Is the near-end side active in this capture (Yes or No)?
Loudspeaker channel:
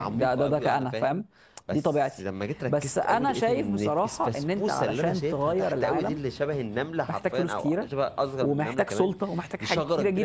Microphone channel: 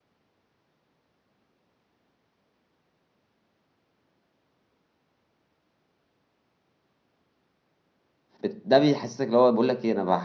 Yes